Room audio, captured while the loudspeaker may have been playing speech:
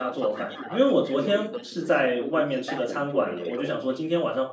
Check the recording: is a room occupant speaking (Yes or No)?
Yes